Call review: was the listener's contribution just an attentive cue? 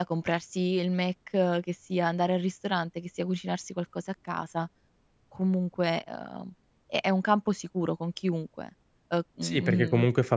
No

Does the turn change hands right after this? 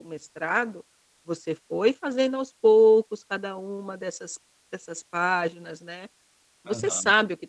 No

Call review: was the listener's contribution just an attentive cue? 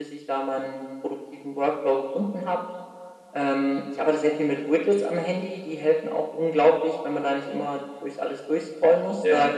Yes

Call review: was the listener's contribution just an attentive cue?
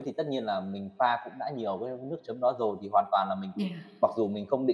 Yes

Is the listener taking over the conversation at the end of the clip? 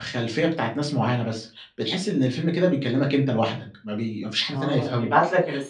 Yes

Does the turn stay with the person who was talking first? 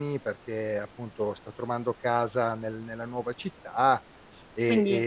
Yes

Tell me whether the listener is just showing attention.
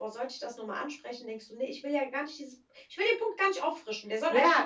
No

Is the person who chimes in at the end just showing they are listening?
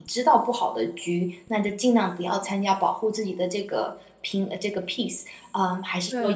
No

